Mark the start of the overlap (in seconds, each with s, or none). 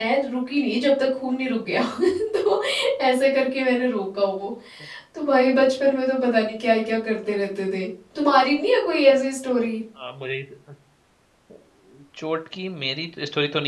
none